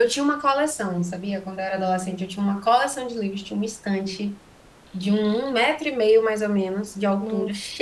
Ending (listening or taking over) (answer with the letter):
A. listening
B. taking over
A